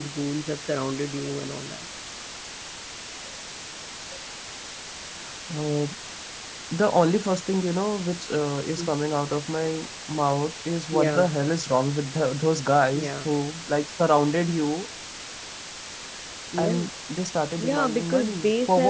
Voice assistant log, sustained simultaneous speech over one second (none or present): present